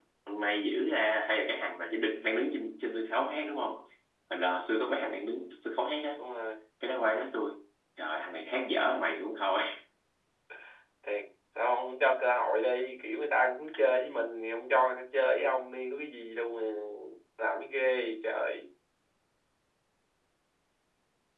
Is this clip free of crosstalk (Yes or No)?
Yes